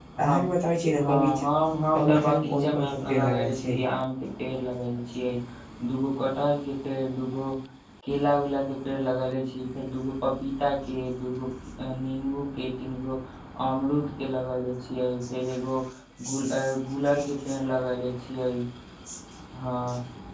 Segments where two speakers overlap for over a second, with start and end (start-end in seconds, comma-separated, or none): 1.9-3.8